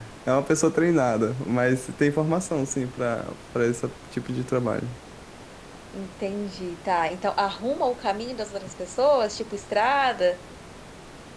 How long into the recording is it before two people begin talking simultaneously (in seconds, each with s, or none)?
none